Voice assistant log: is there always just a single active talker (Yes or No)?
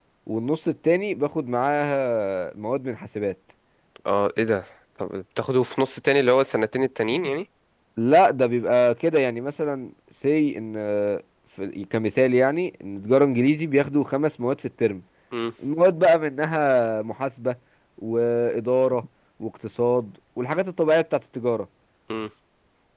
Yes